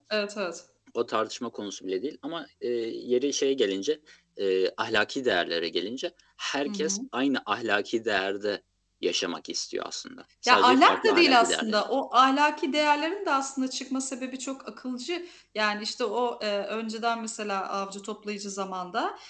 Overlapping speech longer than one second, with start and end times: 10.5-11.8

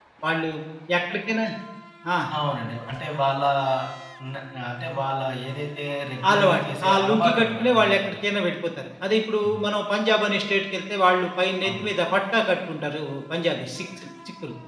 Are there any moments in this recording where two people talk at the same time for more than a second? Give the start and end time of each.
6.3-8.2

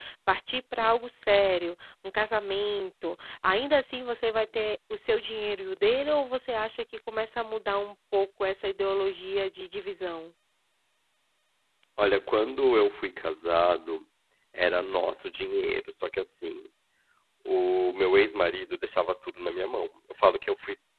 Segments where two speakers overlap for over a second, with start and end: none

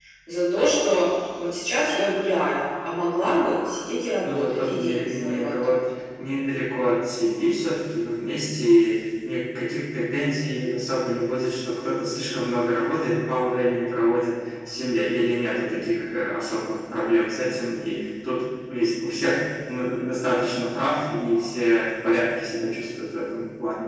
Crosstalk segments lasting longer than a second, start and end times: 4.2-5.8

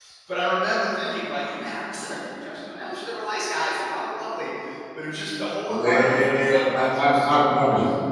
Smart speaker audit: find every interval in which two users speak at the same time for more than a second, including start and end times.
5.7-7.4

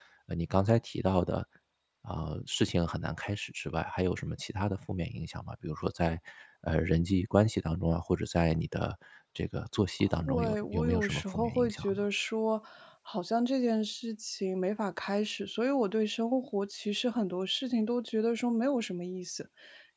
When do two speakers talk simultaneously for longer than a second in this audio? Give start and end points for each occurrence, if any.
10.3-12.0

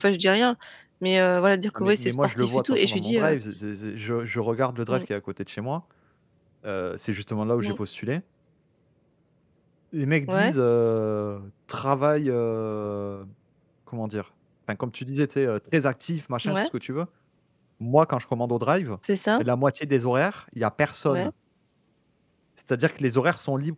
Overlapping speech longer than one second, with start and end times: 1.8-3.4

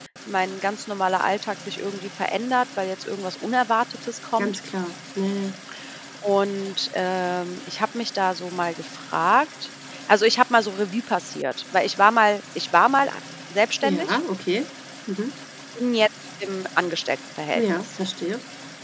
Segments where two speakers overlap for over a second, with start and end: none

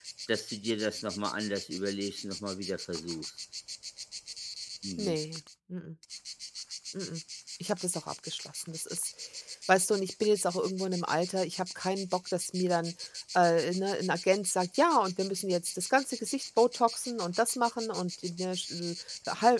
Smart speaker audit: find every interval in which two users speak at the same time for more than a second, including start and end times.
none

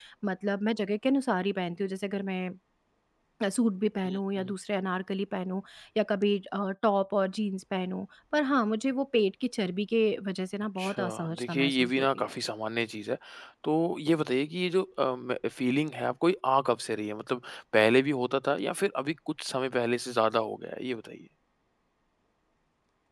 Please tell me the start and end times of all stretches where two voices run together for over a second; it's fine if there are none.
10.8-12.3

